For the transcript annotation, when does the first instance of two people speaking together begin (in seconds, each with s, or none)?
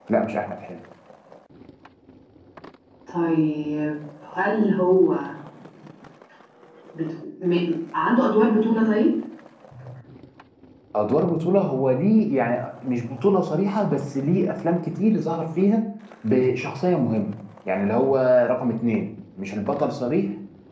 none